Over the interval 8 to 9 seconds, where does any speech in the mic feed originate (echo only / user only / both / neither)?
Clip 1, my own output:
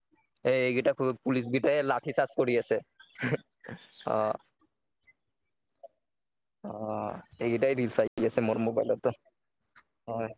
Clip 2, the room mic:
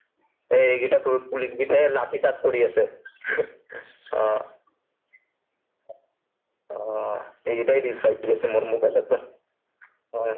echo only